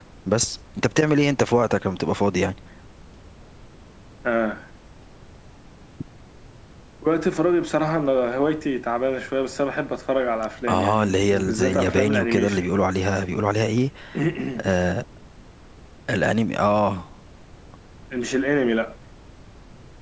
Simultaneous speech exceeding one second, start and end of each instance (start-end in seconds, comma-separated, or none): 10.7-12.6